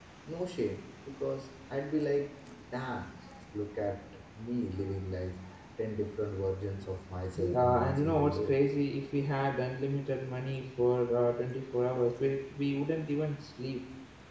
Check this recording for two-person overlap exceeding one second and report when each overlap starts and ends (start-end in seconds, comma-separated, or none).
7.4-8.6